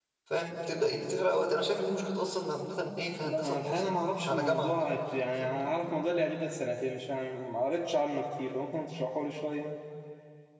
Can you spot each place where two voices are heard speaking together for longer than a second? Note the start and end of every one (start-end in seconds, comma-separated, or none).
3.2-5.7